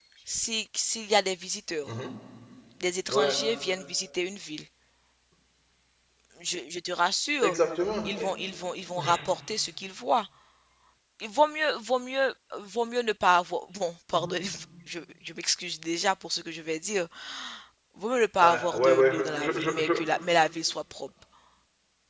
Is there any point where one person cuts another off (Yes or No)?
Yes